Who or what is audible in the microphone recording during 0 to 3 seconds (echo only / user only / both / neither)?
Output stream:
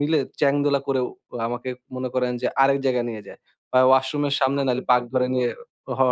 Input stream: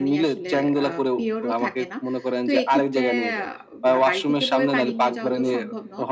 both